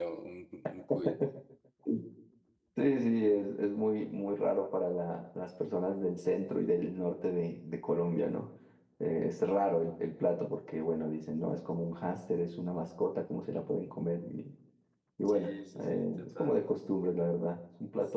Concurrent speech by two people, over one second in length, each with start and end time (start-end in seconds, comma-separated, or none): 15.3-16.6